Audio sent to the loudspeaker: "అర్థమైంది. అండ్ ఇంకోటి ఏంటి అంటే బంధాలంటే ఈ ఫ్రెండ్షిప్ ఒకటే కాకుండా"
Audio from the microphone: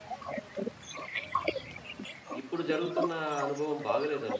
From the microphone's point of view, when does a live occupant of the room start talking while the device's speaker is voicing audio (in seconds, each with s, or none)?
2.4 s